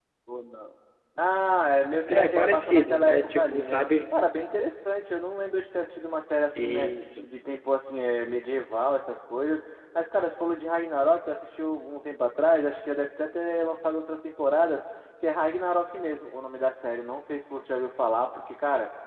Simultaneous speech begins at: 2.1 s

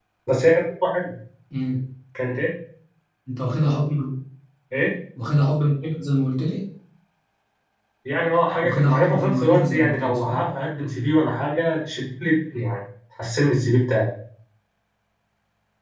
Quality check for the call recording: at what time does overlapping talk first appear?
8.6 s

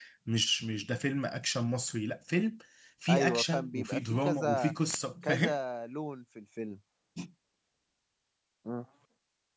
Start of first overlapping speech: 3.1 s

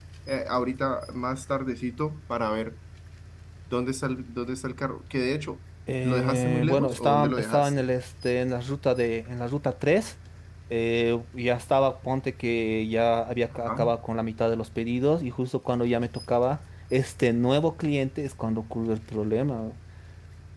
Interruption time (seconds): 6.0 s

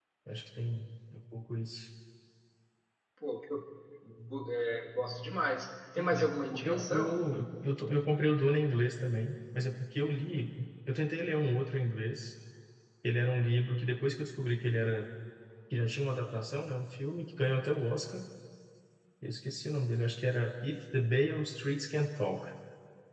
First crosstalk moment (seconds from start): 6.0 s

